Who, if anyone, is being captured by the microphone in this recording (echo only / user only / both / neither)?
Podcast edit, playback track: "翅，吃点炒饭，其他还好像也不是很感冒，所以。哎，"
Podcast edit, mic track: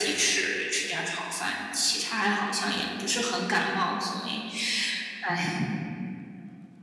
echo only